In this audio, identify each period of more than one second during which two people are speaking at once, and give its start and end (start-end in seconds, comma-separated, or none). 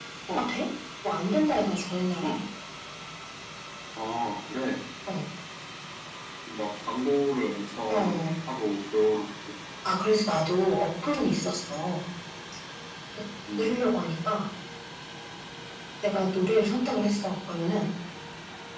none